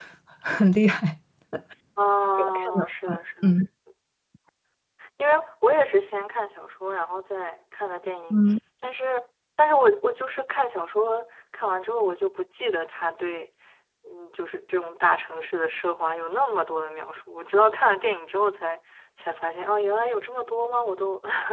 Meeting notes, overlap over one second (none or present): present